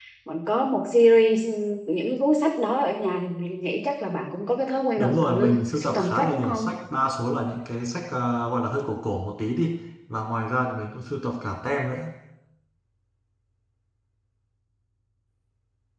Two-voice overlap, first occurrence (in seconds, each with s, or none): 5.0 s